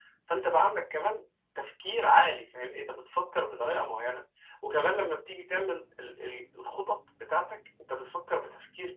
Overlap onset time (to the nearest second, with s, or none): none